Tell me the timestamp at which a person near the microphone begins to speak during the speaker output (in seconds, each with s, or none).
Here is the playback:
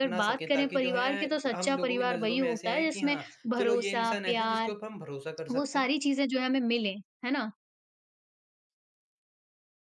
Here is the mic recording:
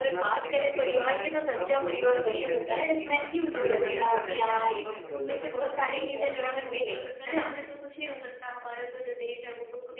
3.1 s